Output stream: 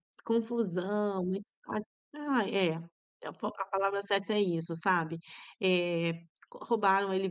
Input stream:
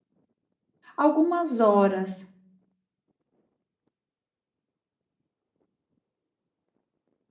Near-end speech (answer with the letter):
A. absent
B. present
B